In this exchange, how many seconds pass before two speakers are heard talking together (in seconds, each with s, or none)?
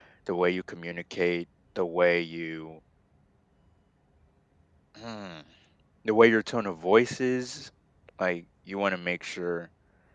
none